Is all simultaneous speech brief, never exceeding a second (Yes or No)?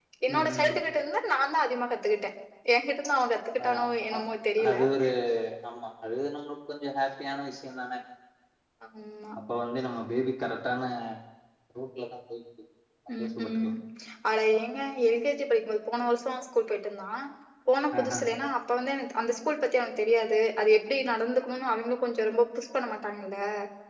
Yes